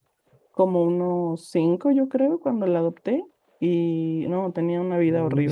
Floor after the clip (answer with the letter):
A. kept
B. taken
B